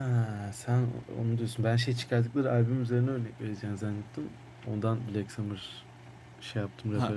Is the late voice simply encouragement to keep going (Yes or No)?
No